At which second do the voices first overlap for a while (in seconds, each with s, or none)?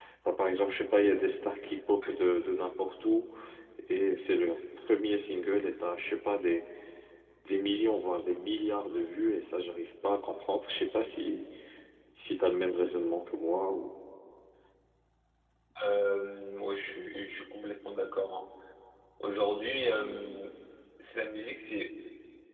none